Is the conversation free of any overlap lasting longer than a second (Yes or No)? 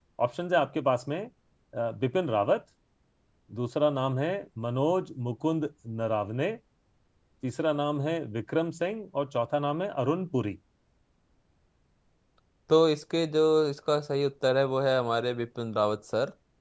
Yes